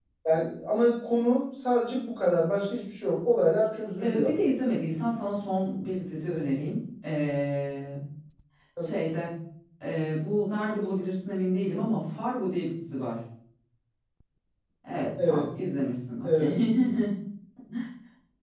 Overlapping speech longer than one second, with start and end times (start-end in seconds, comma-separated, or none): none